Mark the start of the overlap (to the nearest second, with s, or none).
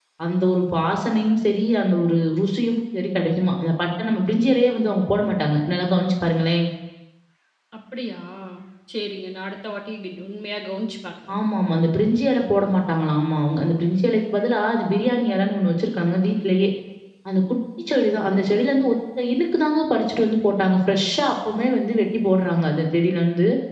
none